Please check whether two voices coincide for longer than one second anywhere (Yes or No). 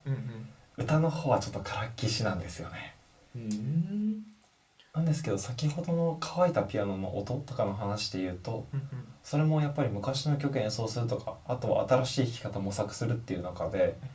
No